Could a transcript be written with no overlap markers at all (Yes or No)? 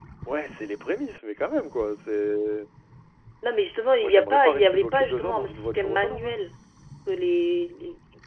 No